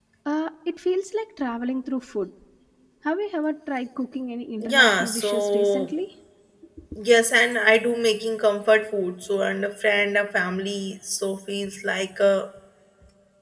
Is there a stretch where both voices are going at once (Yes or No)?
Yes